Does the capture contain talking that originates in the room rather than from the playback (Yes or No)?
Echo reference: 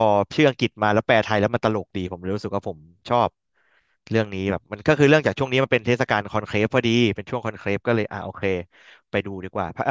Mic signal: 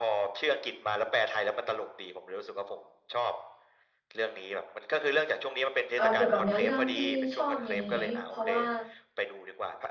Yes